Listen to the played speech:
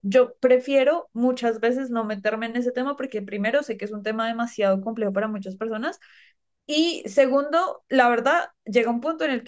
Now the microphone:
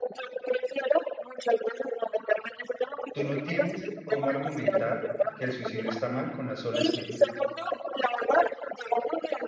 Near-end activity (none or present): present